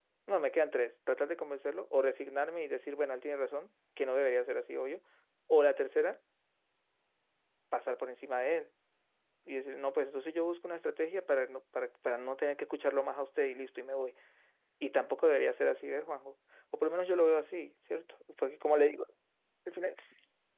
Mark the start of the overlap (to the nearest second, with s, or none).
none